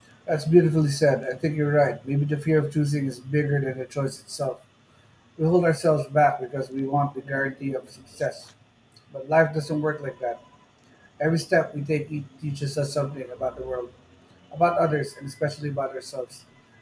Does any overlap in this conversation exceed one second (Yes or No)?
No